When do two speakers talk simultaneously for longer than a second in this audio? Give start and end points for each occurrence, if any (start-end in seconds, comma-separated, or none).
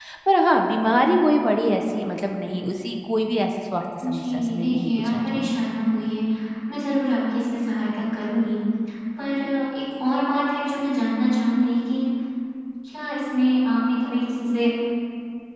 4.1-5.5